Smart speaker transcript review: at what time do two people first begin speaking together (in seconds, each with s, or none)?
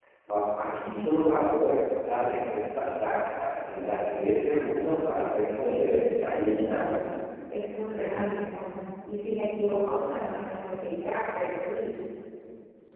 5.6 s